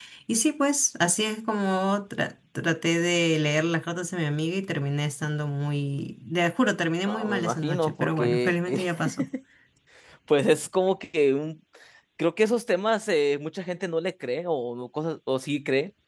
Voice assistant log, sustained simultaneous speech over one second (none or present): present